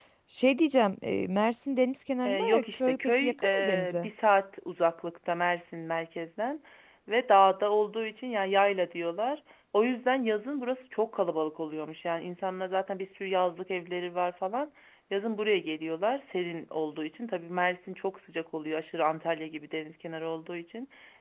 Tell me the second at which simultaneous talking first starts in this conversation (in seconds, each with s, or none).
2.2 s